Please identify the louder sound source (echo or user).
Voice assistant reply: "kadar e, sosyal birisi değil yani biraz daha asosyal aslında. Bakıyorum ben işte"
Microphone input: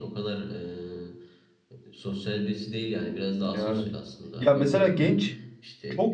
user